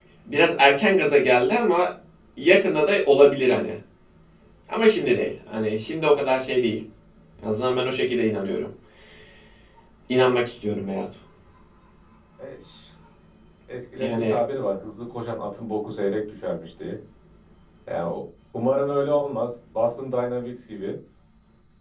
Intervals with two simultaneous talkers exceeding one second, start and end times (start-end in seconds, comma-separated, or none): none